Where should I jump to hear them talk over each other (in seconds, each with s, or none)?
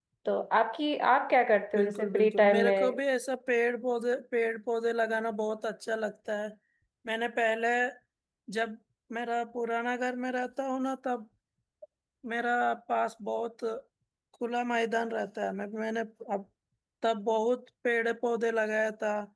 1.7 s